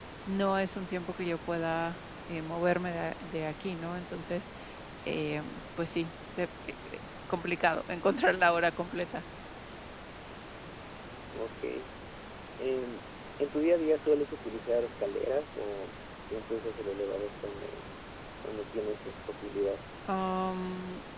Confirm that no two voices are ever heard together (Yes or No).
Yes